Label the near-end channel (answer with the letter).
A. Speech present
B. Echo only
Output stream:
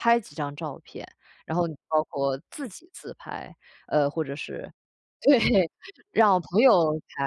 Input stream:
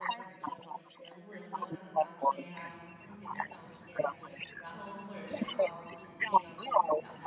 A